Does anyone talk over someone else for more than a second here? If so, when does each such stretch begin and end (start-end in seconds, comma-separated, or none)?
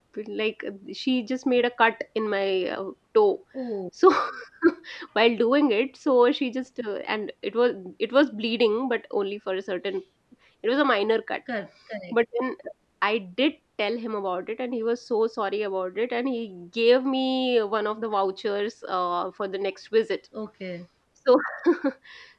none